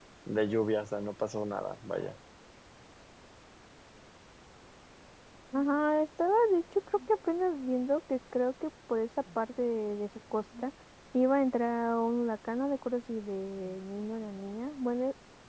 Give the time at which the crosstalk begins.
none

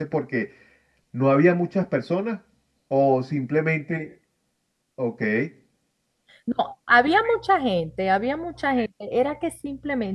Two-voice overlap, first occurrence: none

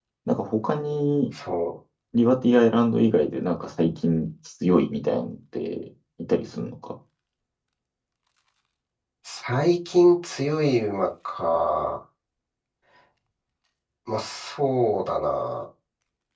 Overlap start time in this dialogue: none

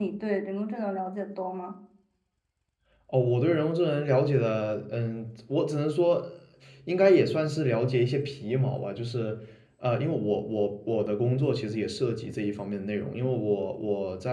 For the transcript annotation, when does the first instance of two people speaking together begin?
none

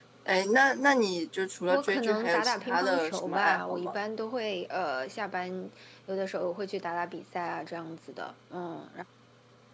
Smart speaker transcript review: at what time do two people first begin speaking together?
1.7 s

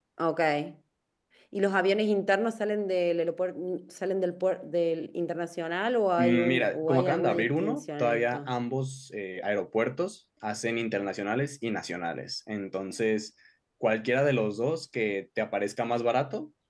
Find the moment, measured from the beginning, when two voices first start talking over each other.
6.2 s

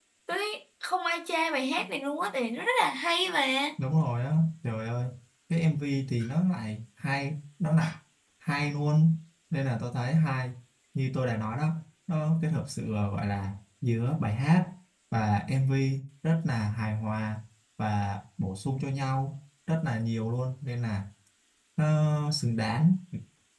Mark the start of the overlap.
none

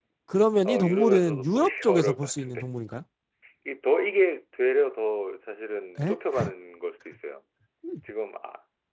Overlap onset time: 0.7 s

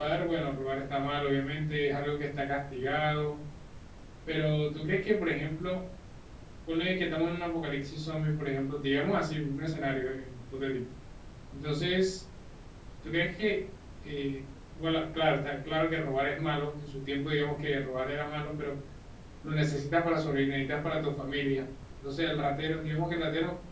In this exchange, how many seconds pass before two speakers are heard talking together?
none

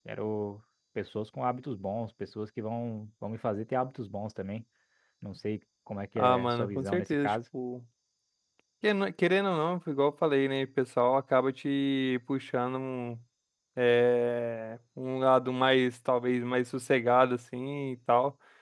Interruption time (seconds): 6.2 s

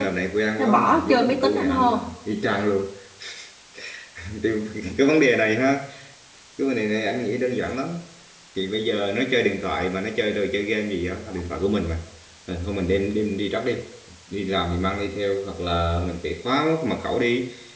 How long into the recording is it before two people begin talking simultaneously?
0.6 s

